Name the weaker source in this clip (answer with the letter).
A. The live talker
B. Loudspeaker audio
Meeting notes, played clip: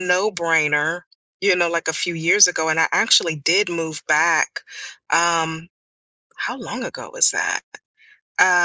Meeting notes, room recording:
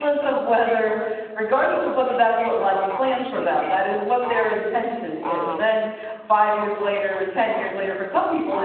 B